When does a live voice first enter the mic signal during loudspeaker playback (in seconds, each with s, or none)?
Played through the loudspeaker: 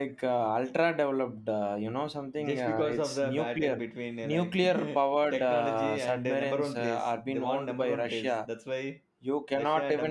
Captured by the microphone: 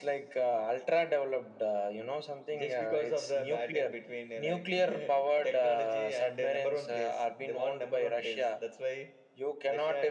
none